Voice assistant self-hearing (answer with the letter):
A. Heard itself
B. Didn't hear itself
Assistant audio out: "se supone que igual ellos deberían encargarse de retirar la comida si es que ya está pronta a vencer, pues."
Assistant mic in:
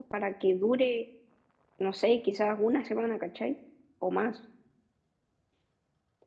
B